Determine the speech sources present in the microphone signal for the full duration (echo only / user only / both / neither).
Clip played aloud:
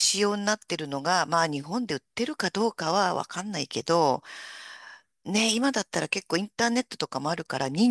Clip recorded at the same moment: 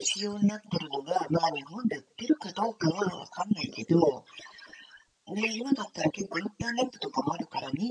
echo only